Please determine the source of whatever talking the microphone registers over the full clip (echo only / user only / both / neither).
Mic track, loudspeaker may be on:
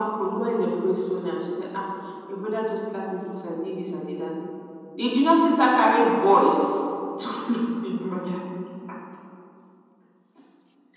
echo only